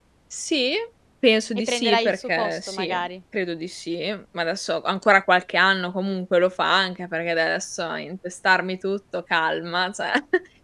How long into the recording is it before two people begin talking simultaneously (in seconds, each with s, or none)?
1.6 s